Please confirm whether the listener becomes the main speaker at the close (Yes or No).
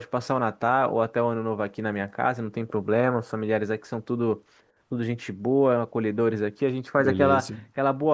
No